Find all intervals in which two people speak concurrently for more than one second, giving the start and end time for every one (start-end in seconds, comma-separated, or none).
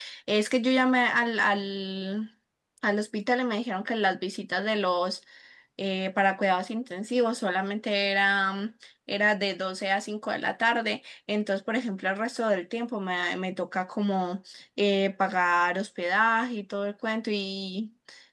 none